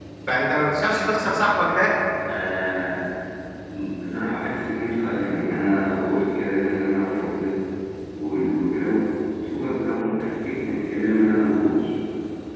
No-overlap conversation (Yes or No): Yes